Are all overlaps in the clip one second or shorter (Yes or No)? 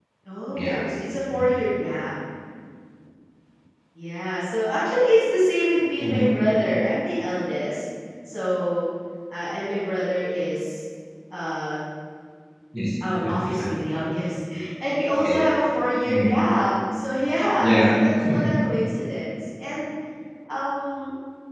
Yes